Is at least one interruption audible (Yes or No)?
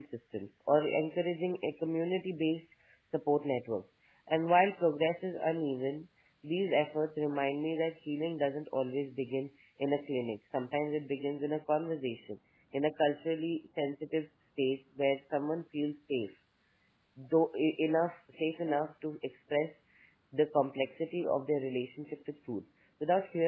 No